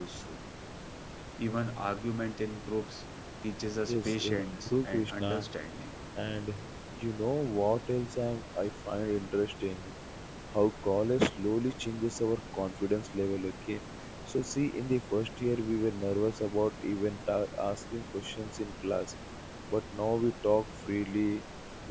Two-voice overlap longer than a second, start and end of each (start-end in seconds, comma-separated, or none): 3.9-5.5